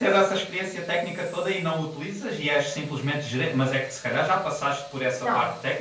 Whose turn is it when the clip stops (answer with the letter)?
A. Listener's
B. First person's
A